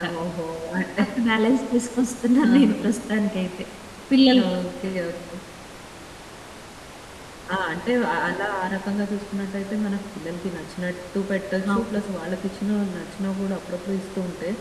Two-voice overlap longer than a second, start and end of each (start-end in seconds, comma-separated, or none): none